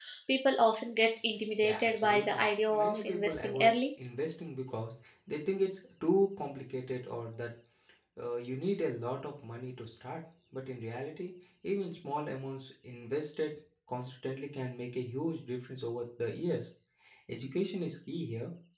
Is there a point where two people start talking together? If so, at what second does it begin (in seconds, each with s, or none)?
1.6 s